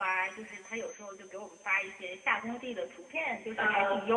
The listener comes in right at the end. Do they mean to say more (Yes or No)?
No